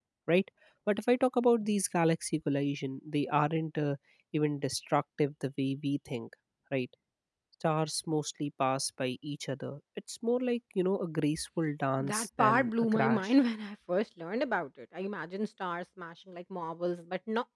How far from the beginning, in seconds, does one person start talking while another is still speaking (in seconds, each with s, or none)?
12.0 s